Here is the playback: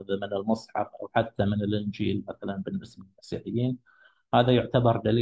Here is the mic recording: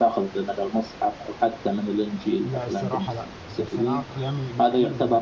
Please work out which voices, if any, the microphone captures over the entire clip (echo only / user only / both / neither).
both